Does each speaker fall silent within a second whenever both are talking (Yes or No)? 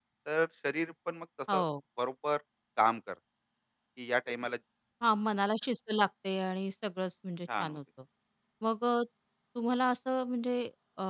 Yes